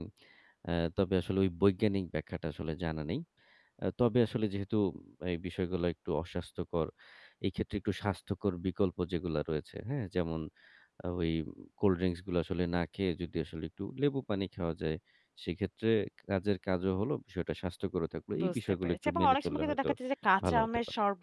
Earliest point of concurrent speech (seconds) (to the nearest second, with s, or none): 18 s